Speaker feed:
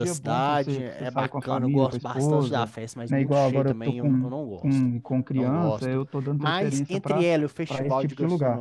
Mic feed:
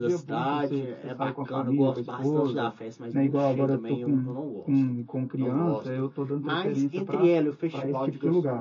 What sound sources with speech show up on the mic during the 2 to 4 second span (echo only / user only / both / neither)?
echo only